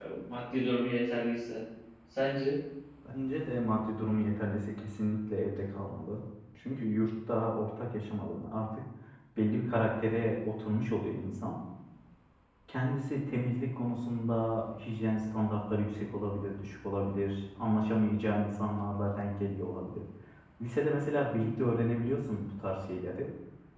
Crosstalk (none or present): none